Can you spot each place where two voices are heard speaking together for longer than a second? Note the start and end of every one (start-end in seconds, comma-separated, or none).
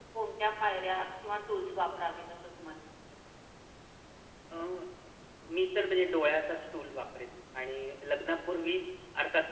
none